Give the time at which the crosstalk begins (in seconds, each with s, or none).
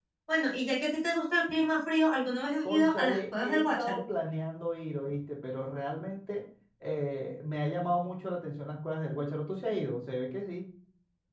2.6 s